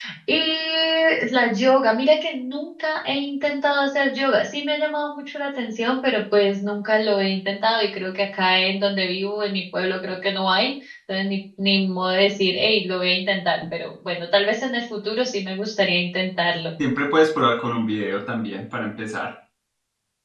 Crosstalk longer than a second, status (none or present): none